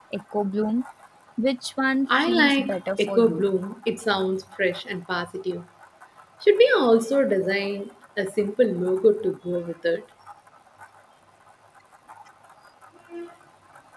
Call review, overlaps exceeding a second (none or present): present